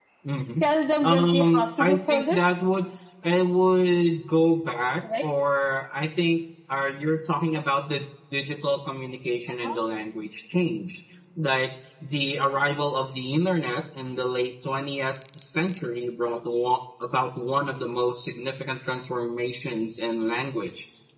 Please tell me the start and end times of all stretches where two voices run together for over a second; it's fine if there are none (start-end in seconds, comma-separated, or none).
1.0-2.4